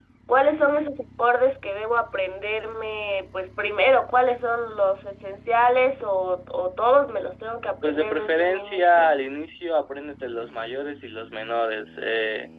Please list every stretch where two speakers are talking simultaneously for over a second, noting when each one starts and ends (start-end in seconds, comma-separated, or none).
7.8-9.1